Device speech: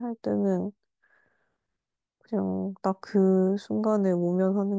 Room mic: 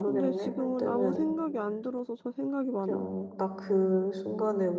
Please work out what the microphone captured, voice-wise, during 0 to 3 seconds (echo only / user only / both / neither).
both